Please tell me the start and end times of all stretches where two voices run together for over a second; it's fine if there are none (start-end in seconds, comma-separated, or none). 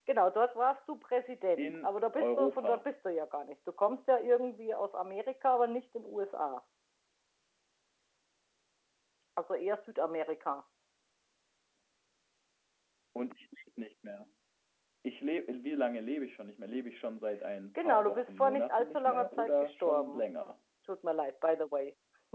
1.6-2.8, 17.8-20.2